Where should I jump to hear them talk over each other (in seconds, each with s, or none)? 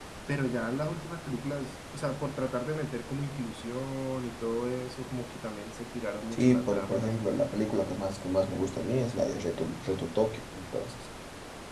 6.3 s